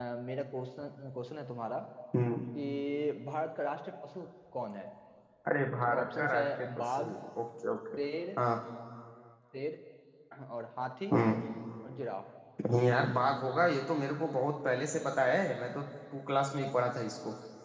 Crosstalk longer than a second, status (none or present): present